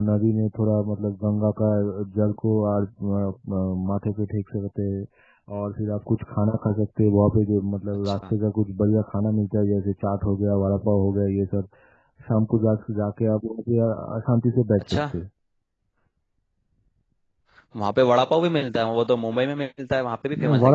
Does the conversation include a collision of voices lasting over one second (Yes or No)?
No